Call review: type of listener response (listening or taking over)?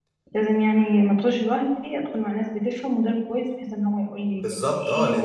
taking over